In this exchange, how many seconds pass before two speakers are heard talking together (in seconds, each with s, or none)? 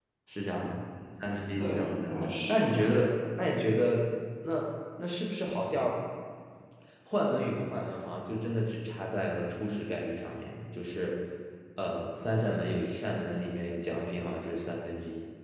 1.6 s